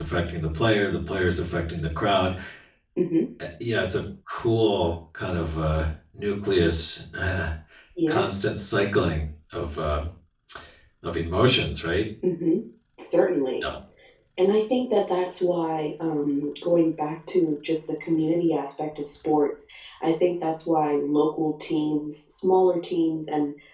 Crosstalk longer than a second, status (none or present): none